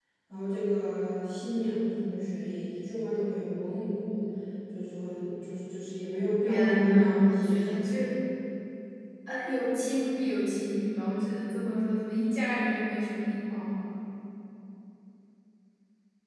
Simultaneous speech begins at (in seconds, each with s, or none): 6.4 s